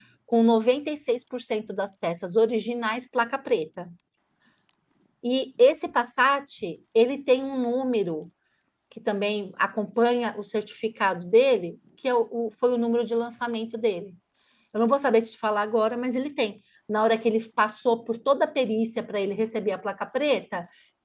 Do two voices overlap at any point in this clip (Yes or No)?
No